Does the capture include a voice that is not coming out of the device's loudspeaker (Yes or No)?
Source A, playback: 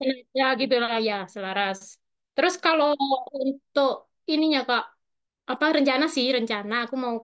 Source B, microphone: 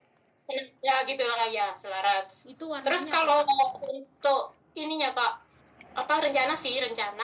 Yes